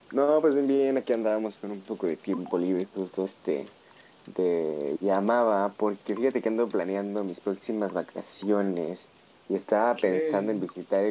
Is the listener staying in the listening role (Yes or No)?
Yes